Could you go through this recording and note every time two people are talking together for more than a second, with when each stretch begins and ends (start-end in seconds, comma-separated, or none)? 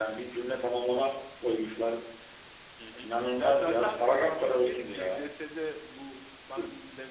3.0-5.3